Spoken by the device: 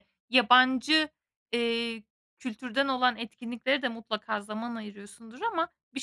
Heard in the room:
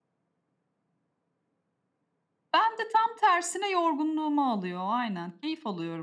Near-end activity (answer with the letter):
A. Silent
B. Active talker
B